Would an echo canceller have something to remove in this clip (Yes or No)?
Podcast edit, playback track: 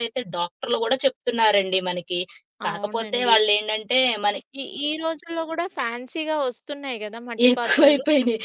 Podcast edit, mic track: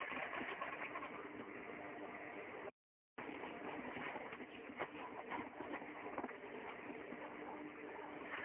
No